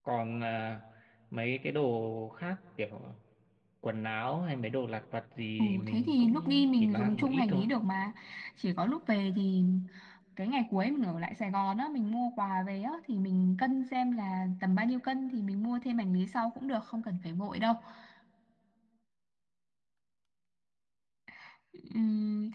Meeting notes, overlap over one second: present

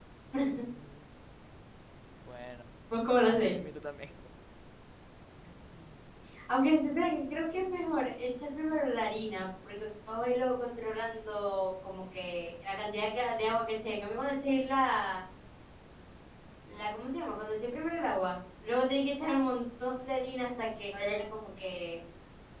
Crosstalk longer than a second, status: none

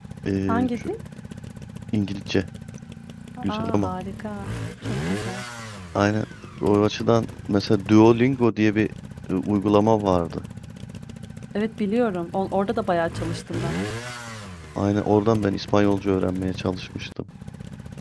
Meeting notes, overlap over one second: none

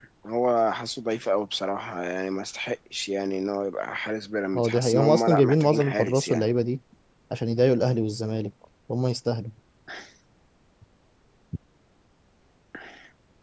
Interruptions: present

